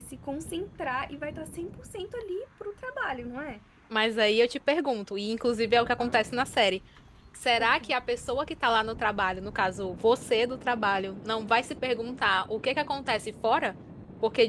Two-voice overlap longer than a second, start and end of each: none

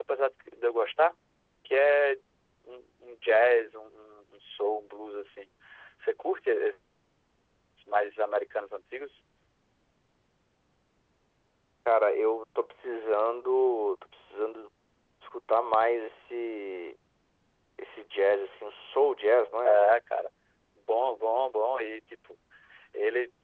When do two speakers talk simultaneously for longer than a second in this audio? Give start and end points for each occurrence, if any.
none

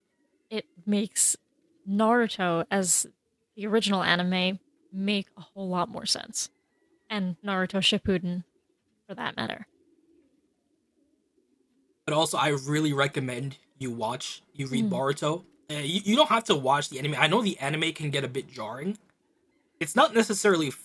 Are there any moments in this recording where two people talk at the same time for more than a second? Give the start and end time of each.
none

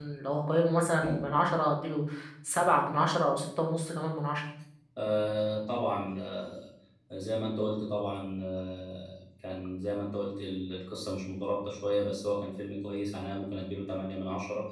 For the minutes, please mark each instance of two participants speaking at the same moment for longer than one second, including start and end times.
none

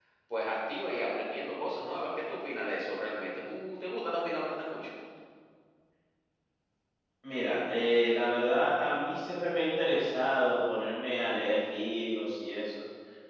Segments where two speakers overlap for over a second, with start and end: none

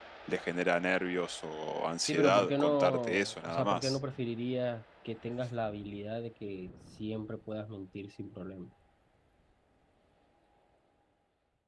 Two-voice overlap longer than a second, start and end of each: 2.1-4.0

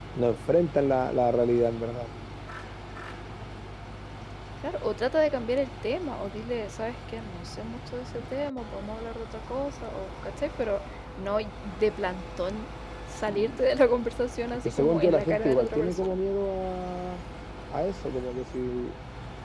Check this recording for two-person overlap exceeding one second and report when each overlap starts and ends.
14.6-16.2

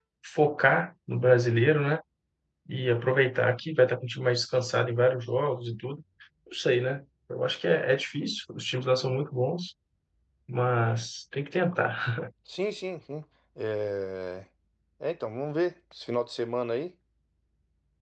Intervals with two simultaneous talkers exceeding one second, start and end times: none

